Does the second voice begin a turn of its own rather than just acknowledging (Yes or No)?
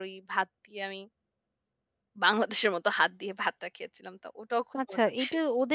Yes